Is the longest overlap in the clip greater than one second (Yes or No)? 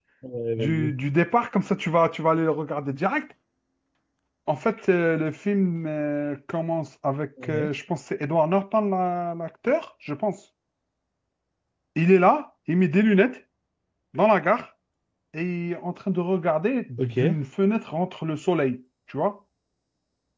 No